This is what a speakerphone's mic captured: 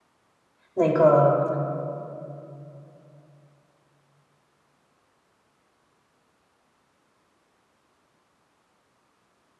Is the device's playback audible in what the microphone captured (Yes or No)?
No